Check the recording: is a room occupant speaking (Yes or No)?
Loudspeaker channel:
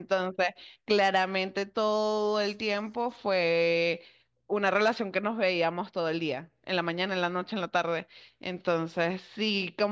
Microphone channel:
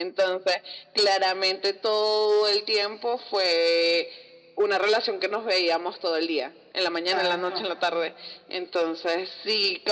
Yes